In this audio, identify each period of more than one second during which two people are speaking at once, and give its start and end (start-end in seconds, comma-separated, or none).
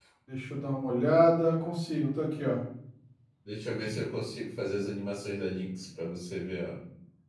none